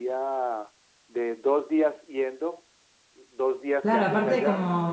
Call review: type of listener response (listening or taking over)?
taking over